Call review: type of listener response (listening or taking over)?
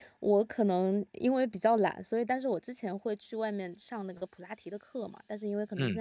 listening